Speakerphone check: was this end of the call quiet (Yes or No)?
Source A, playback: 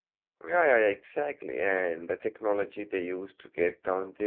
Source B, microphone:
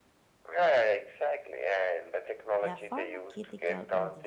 No